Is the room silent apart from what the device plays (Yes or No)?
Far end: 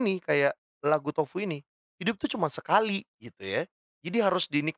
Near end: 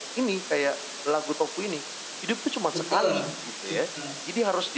No